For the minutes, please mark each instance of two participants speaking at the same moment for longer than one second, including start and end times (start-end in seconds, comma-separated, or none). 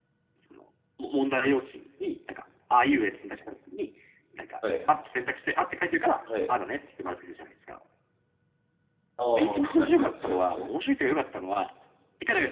9.4-10.8